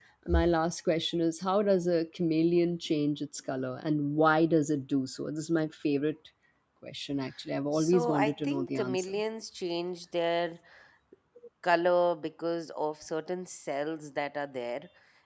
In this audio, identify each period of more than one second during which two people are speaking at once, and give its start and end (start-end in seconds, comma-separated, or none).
7.7-9.1